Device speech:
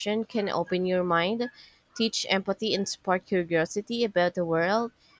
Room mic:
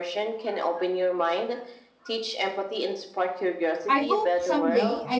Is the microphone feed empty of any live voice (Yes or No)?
No